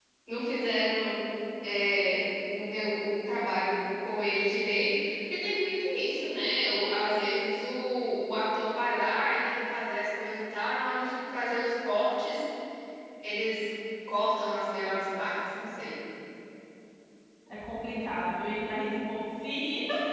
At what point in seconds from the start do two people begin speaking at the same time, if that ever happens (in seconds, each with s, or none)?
none